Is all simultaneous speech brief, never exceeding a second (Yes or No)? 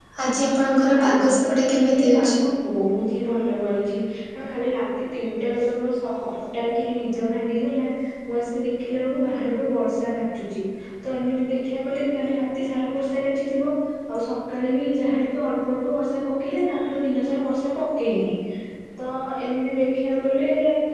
No